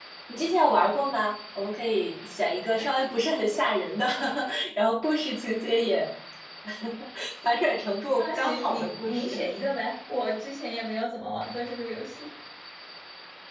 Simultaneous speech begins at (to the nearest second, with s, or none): 8 s